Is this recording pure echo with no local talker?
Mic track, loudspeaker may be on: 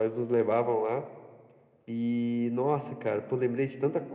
Yes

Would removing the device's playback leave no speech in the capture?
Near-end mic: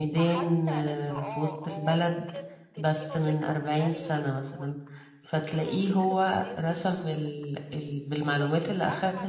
No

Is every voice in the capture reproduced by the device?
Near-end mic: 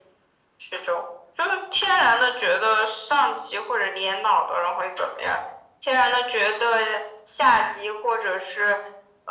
Yes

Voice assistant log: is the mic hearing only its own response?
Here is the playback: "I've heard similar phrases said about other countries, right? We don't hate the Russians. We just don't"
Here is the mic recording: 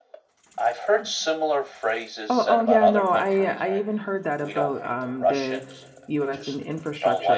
No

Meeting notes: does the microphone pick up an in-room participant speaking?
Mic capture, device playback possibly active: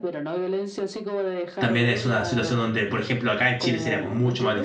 Yes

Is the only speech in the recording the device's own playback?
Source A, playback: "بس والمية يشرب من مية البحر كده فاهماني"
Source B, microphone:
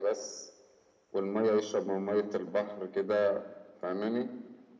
Yes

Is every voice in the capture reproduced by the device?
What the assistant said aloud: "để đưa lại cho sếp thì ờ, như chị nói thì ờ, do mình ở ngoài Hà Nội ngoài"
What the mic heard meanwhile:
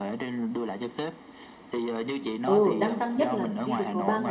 No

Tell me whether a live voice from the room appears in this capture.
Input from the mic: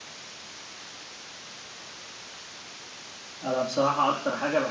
Yes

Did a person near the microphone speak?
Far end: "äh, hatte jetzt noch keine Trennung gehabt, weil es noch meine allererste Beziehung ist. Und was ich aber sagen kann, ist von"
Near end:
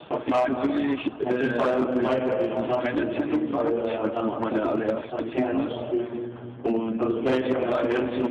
Yes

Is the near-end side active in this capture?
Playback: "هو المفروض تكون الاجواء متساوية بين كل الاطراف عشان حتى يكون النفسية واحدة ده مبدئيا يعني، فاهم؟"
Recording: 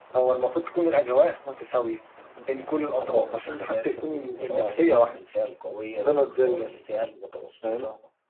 Yes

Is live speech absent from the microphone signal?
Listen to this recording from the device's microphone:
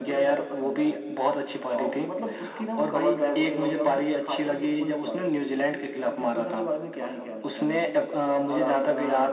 Yes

